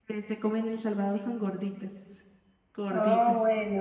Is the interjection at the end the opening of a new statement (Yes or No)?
Yes